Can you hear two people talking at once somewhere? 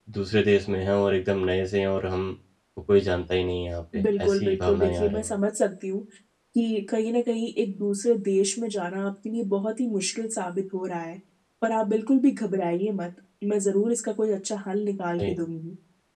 Yes, from 3.9 s

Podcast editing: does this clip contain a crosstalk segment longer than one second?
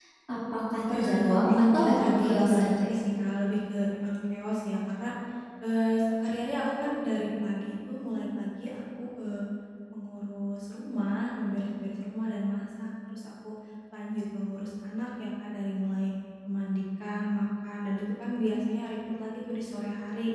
Yes, from 0.9 s

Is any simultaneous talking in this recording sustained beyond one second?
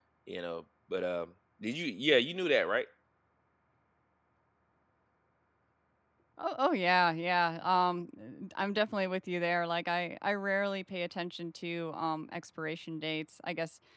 No

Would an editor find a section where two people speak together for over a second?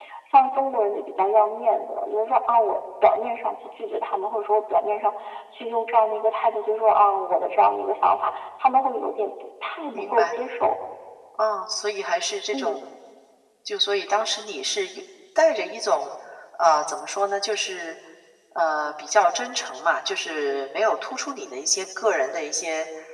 No

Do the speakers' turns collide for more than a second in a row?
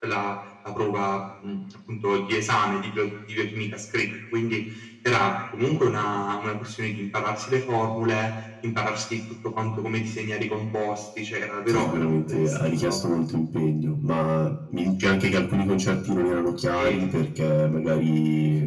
Yes, from 11.7 s

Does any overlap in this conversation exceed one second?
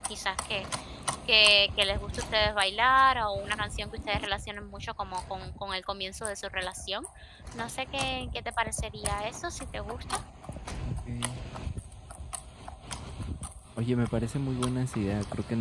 No

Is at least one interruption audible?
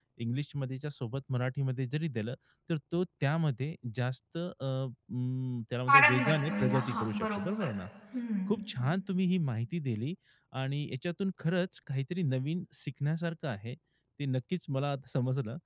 Yes, from 5.9 s

